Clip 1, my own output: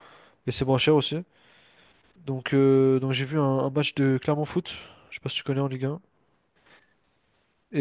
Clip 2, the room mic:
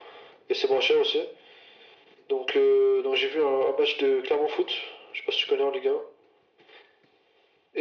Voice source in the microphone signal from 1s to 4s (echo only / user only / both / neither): echo only